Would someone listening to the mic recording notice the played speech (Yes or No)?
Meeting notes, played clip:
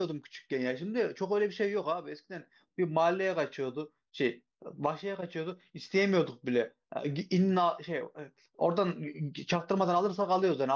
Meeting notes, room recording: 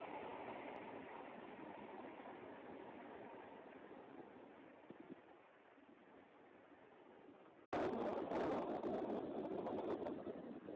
No